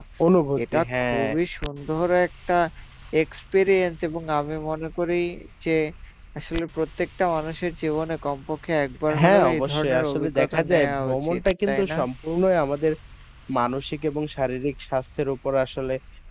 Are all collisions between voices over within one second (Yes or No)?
No